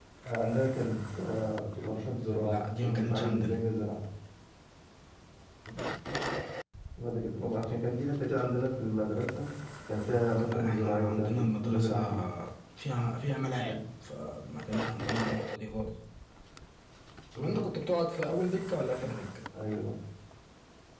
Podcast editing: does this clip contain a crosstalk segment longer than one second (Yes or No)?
Yes